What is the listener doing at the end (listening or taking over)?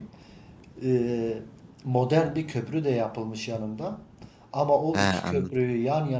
listening